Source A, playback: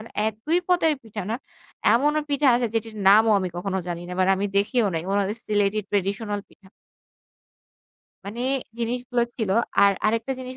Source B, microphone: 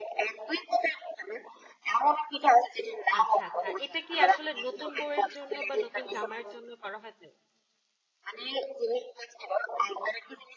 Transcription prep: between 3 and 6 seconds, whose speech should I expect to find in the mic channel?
both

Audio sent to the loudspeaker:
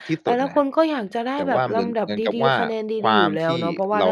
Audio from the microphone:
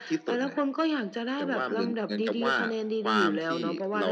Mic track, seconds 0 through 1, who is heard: echo only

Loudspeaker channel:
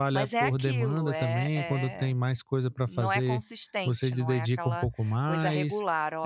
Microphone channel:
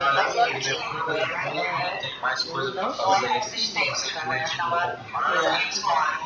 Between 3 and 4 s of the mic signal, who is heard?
both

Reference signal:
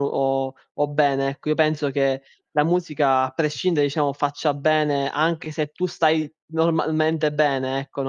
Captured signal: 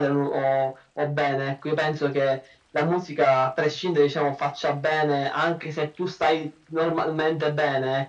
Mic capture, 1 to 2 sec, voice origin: echo only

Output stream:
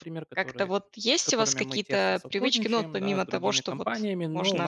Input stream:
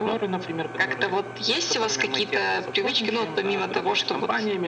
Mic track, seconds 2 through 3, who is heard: echo only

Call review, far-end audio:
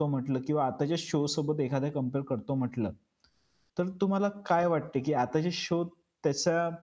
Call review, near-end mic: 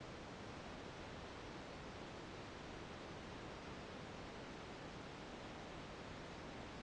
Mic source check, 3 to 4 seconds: neither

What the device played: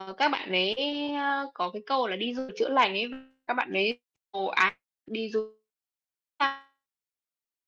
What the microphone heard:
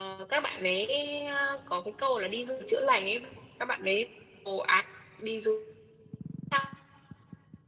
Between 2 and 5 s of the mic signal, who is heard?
echo only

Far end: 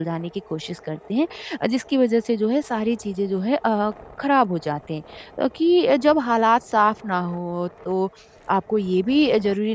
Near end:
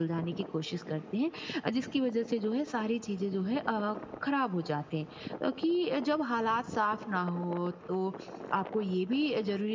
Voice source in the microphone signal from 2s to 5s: echo only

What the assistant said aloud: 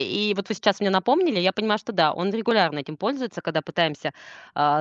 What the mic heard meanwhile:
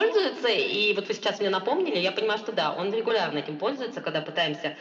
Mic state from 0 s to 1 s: echo only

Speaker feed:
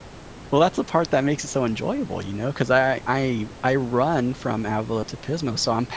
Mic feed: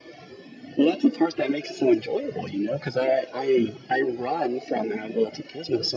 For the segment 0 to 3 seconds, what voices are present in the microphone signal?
echo only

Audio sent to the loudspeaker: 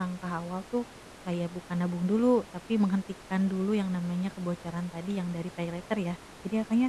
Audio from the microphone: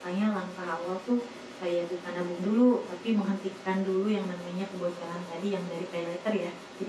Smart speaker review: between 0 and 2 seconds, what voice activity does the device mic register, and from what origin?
echo only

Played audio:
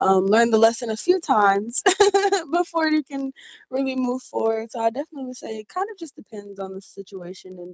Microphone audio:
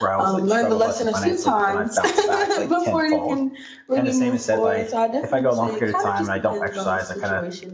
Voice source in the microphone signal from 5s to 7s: both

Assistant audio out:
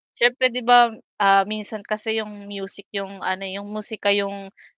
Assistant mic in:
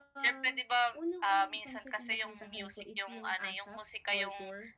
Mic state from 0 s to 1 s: both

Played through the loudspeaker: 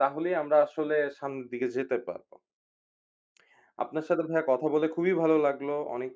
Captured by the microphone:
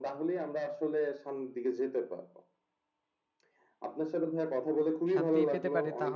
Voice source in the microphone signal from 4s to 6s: both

